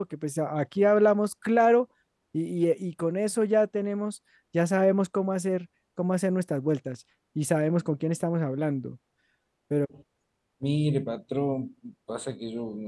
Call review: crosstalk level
none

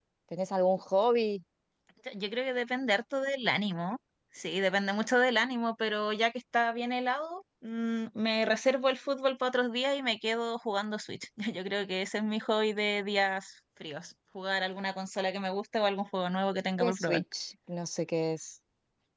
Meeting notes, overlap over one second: none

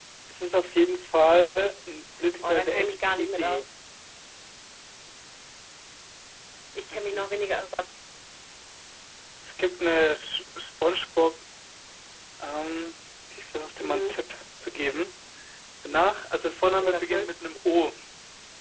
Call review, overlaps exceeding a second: present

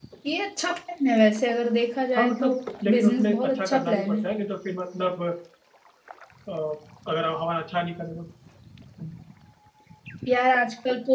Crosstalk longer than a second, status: present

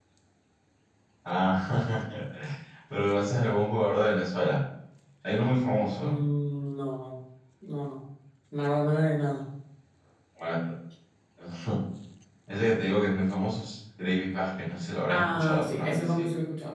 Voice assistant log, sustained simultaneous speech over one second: present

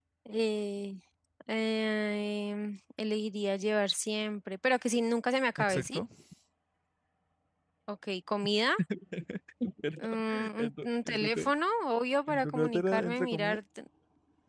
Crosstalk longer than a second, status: present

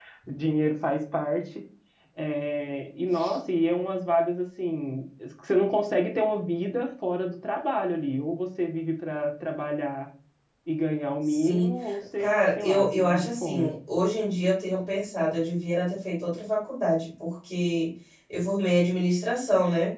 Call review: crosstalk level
present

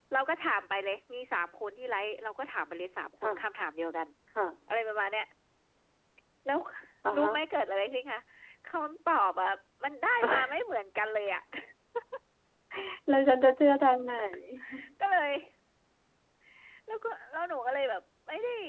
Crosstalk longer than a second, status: none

